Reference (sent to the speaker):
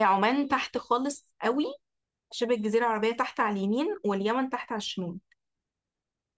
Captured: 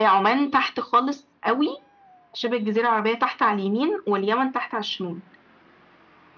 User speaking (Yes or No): No